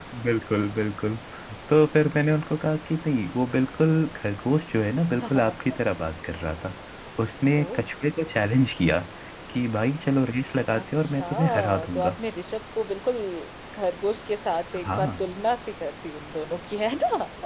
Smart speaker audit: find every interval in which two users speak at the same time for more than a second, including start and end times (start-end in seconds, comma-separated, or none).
10.8-12.1